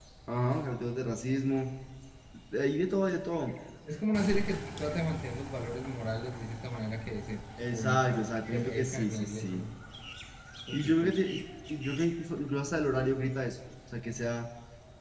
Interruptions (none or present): present